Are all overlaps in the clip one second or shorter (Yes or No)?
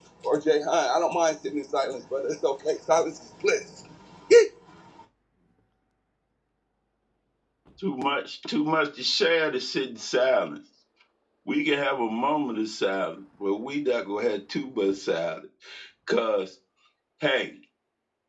Yes